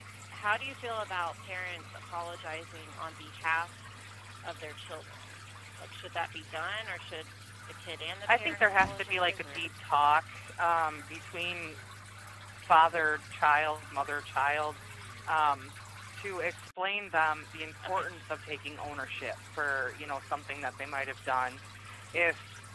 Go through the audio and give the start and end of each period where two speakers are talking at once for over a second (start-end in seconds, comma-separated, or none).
8.3-9.7